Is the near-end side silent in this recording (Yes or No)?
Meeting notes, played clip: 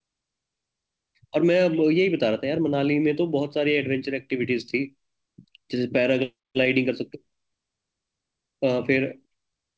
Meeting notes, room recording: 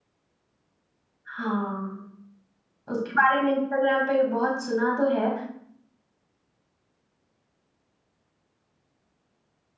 No